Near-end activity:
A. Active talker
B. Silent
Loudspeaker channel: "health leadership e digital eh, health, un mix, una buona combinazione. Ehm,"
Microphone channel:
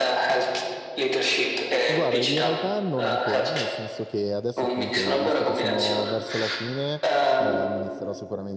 A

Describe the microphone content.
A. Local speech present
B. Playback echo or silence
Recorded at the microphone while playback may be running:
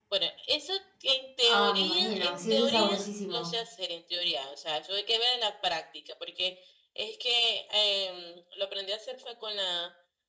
A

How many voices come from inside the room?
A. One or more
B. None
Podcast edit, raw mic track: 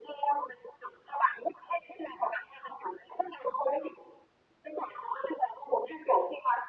B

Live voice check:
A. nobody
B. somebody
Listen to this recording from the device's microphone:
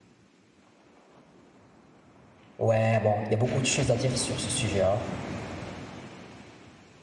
B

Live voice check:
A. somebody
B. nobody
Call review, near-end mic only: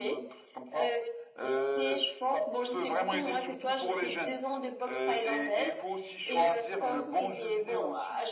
B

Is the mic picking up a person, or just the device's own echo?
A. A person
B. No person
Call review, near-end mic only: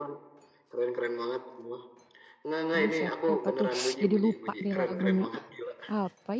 A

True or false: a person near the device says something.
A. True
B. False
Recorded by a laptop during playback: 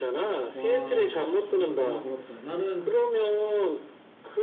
A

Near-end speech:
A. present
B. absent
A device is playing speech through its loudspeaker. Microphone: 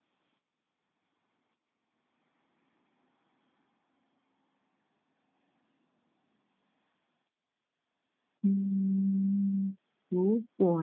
A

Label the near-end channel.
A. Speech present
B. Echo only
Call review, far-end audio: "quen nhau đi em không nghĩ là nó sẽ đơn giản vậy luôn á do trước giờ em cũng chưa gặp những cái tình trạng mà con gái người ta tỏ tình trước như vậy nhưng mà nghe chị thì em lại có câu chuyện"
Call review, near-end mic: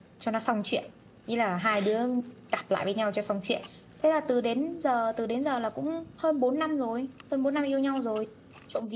A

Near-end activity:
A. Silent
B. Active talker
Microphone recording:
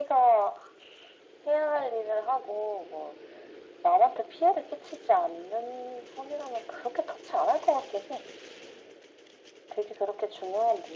A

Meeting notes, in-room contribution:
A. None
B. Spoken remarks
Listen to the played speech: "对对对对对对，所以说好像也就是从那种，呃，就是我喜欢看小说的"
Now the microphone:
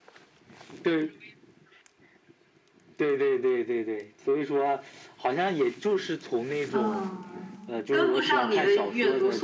B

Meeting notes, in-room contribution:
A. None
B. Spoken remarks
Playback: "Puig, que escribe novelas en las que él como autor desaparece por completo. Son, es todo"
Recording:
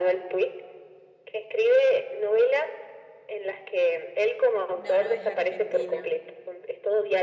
B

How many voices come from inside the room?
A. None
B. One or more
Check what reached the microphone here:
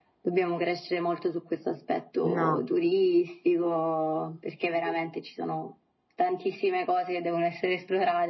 B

